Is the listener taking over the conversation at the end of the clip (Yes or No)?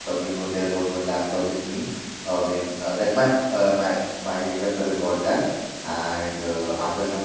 No